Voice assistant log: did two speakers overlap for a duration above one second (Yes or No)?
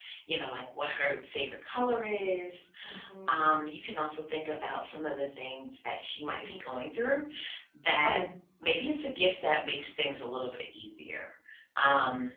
No